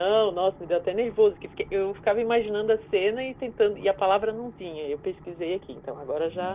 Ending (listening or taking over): taking over